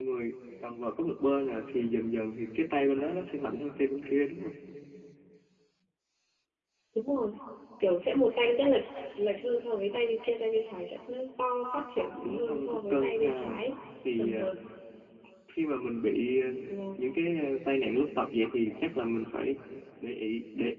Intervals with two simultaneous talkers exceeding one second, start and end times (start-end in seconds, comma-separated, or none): 12.2-13.5